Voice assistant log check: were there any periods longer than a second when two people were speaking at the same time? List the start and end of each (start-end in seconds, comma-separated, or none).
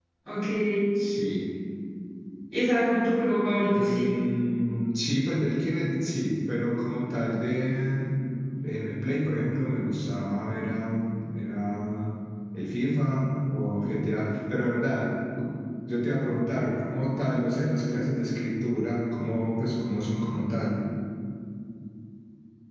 none